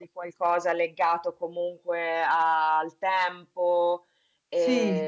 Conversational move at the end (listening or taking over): listening